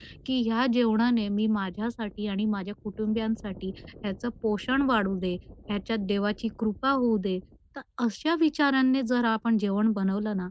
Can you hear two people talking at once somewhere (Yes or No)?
No